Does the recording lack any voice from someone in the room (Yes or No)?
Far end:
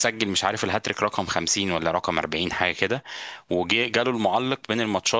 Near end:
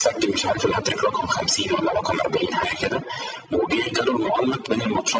Yes